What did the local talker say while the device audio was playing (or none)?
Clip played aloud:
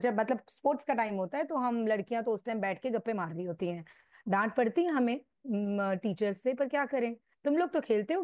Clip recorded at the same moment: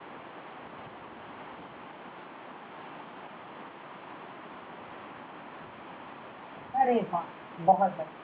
अरे वाह बहुत